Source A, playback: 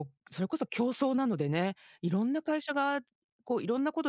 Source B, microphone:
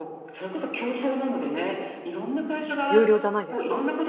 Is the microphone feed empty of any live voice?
No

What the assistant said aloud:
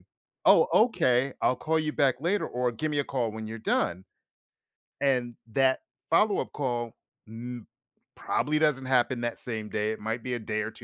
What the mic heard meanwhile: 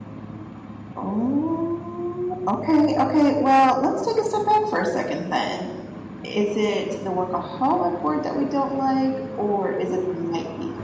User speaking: Yes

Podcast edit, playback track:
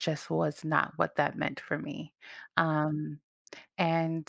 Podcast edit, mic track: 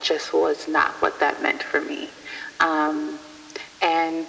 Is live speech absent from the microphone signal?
Yes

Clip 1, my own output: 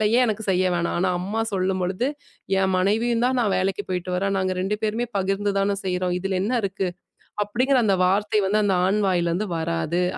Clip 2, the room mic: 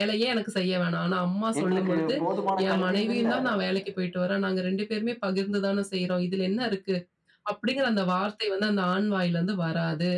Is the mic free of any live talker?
No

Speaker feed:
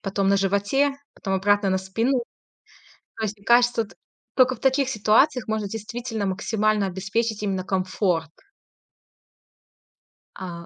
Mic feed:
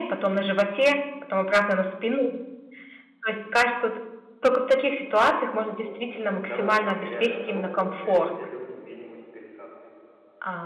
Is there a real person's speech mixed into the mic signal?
Yes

